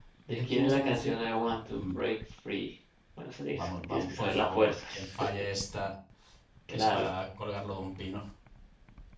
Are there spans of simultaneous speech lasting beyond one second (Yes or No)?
Yes